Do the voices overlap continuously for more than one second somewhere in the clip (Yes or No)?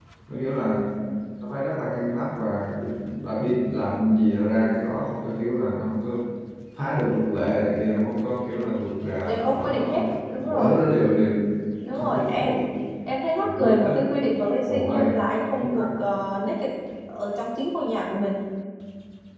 Yes